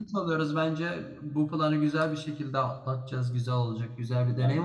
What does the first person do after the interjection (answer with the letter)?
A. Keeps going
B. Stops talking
A